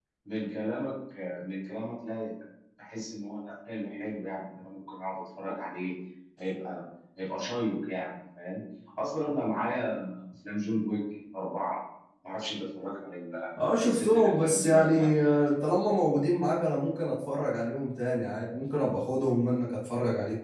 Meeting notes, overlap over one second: present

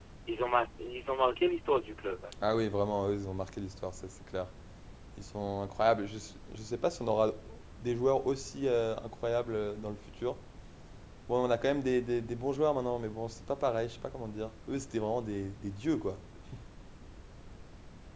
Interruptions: none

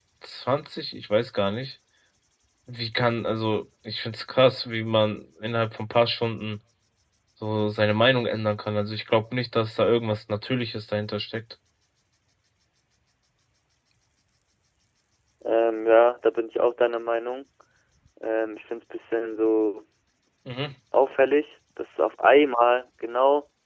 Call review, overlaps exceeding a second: none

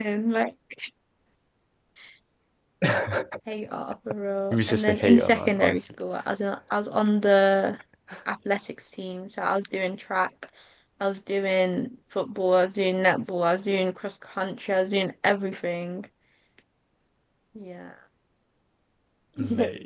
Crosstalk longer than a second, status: present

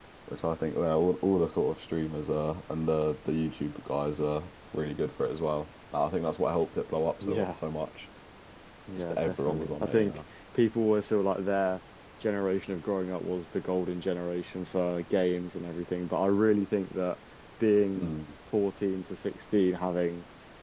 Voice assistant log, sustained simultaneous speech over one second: present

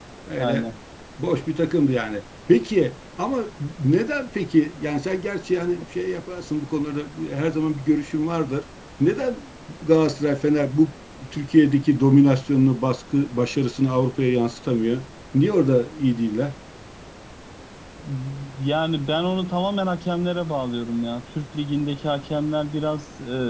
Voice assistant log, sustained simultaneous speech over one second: none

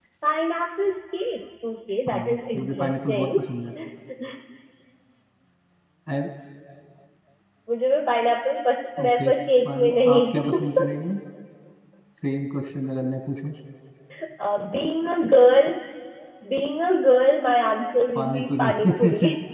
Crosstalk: present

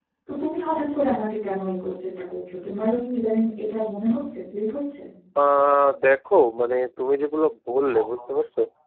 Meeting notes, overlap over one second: none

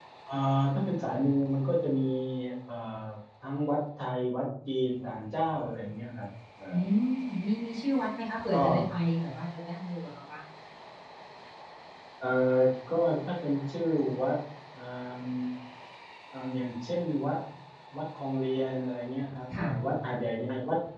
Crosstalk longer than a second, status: none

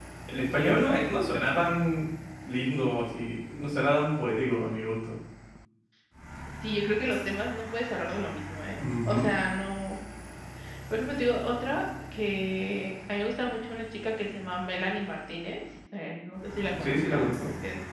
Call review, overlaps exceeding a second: none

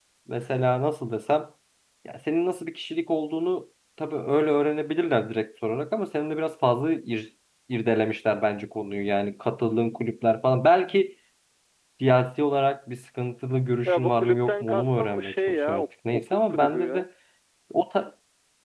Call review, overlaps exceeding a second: present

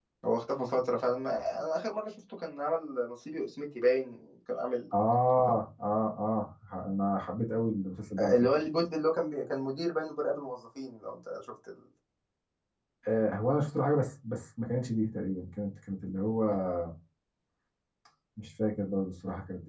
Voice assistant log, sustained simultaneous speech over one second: none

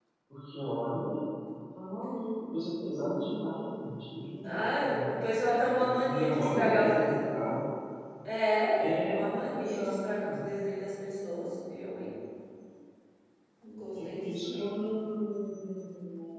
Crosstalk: present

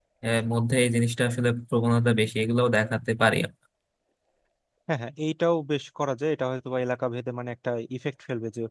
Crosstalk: none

